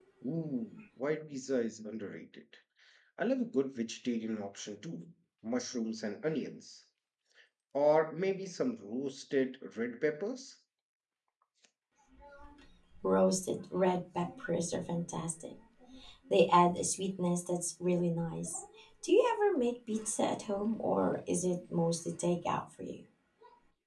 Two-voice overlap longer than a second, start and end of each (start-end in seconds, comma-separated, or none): none